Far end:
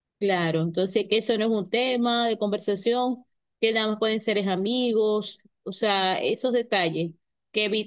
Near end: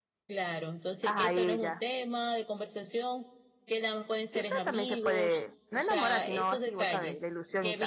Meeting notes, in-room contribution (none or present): present